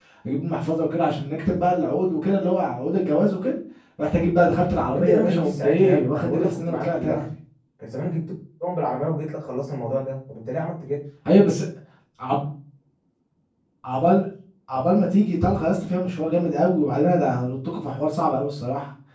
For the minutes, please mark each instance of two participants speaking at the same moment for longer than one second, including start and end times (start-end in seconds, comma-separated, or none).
4.9-7.2